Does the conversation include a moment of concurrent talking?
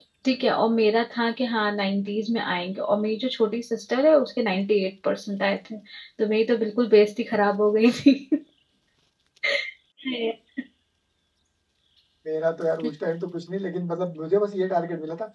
No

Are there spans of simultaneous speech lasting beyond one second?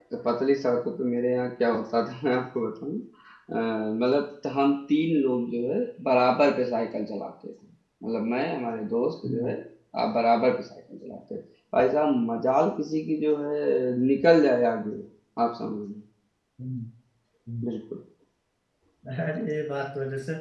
No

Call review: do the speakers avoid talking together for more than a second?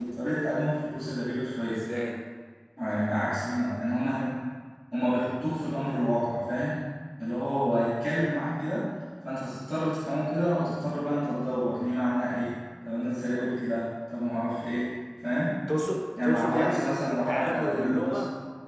No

